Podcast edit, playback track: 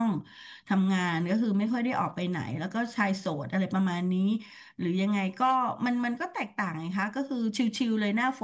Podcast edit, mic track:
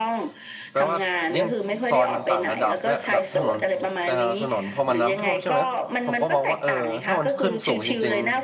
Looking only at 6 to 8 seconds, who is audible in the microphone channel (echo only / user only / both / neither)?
both